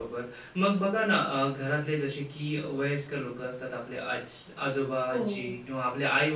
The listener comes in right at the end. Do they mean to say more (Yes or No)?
No